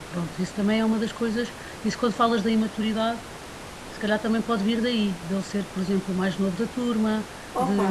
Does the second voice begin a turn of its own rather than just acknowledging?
Yes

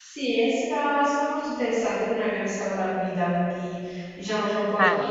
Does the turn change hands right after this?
No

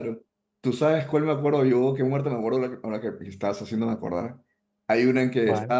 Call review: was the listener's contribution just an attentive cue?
Yes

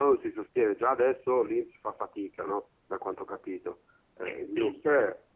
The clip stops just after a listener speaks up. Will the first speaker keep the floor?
No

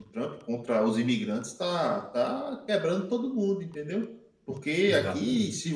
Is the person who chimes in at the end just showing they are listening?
Yes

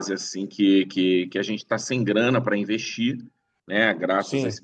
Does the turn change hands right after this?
No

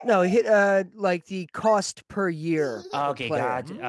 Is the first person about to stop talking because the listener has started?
Yes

